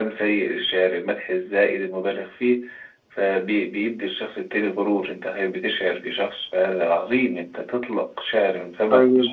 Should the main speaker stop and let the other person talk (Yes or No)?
Yes